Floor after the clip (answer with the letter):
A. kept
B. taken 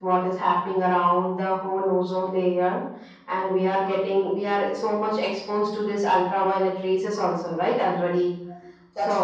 A